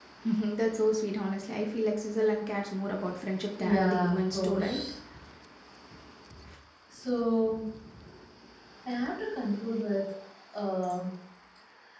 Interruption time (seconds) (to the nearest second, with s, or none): 4 s